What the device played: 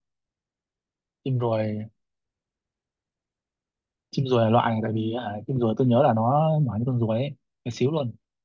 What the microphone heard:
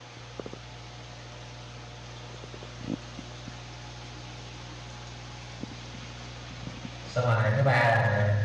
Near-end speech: present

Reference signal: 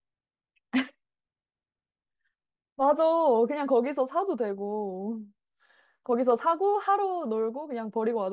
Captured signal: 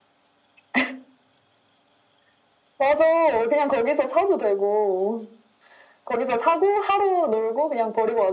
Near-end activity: none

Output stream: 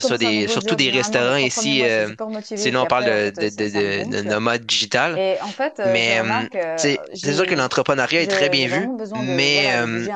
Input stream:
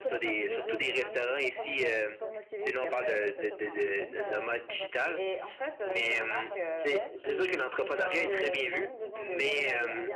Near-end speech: present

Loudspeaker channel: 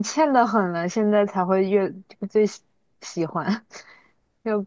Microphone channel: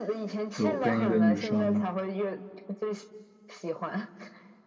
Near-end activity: present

